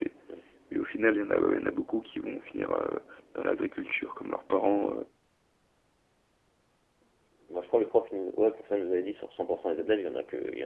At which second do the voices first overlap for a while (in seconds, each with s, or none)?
none